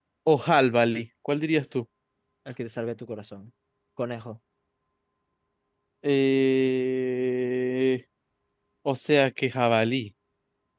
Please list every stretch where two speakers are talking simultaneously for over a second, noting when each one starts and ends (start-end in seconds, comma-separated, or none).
none